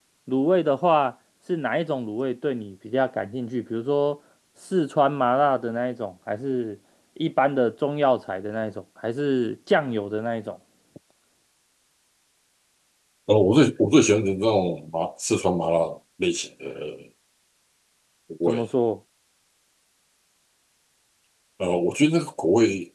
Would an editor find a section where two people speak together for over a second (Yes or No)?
No